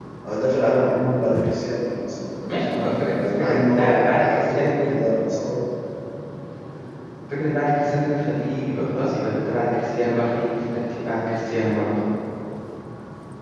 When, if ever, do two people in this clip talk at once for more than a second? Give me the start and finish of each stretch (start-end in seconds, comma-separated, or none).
3.1-4.9